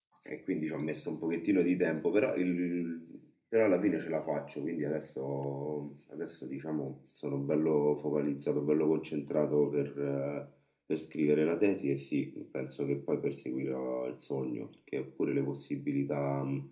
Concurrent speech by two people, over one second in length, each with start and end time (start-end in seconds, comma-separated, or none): none